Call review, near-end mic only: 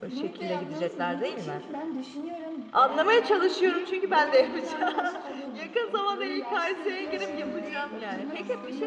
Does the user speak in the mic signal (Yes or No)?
Yes